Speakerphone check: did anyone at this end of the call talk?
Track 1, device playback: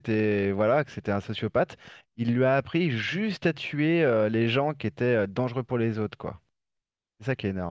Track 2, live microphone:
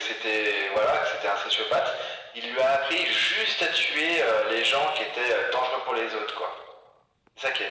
No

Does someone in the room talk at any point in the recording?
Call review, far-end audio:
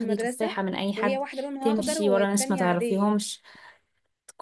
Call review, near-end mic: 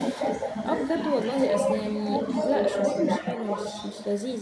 Yes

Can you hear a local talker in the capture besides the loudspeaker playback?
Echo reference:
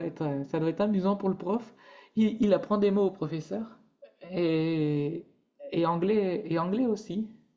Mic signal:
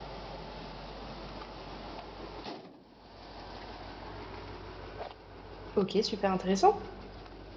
Yes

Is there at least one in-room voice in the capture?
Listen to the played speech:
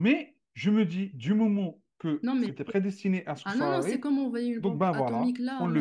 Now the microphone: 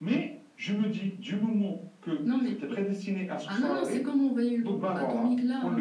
No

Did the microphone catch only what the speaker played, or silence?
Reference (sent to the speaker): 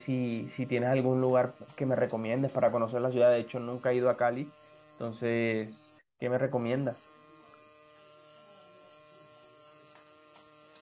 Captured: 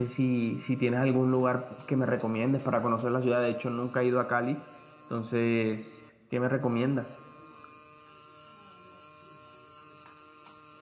Yes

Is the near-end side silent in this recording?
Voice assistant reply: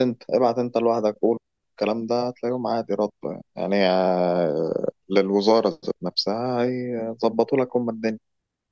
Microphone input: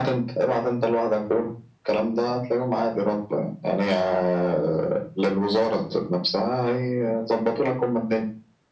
Yes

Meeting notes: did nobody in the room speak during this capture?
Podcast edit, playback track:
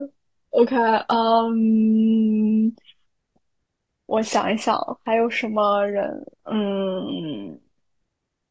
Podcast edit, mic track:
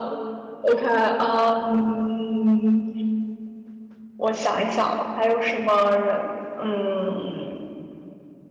Yes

